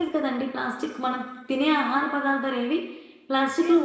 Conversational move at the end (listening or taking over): taking over